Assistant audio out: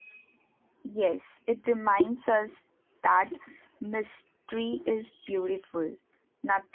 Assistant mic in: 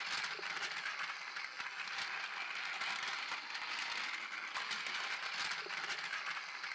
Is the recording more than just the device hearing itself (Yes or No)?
No